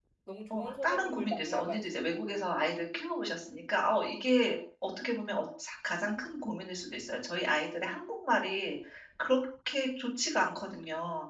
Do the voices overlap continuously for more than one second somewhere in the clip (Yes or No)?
Yes